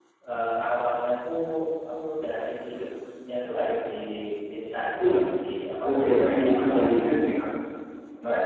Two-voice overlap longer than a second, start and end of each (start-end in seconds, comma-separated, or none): 5.8-7.1